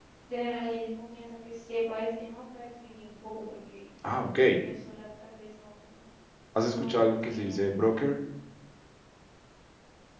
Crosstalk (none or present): present